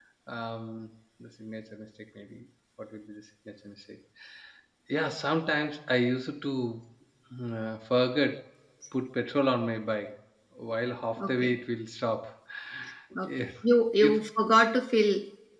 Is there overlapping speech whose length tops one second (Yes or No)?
No